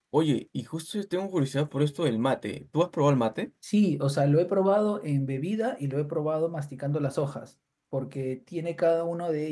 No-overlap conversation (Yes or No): Yes